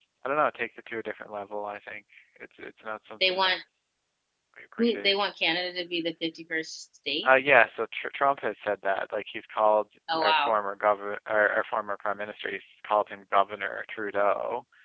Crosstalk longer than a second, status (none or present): none